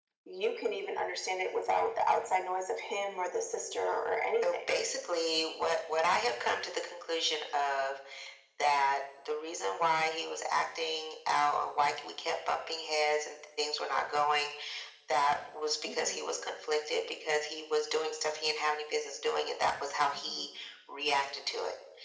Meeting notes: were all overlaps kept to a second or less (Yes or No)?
Yes